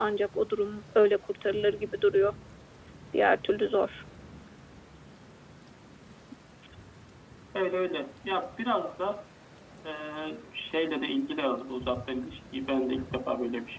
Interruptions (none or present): none